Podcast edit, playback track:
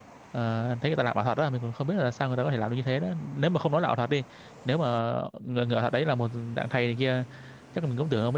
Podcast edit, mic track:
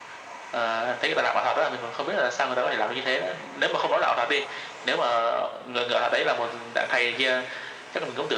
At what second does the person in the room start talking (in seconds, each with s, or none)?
none